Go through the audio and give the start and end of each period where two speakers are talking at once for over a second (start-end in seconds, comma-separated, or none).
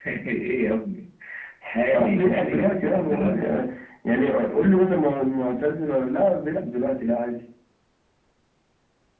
1.9-3.6